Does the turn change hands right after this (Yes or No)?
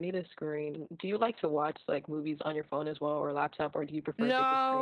Yes